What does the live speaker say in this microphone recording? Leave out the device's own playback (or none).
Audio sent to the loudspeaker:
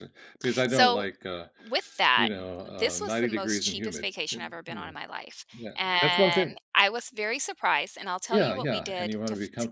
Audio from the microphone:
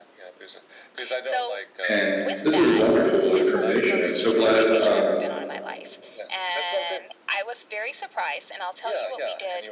and this is wonderful information, I'm so glad, um,